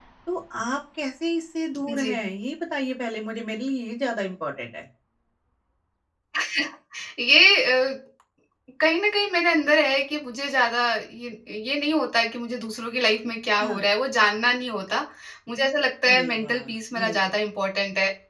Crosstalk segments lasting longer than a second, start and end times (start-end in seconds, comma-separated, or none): 16.1-17.3